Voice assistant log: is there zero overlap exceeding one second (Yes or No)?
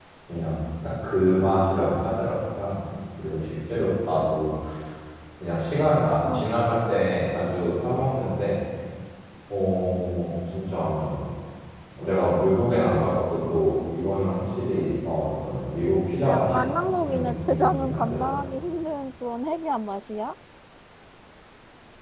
No